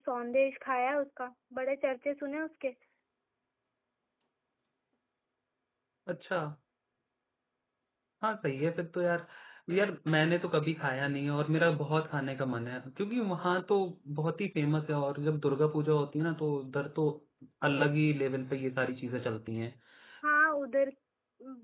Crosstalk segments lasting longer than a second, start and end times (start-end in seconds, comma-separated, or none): none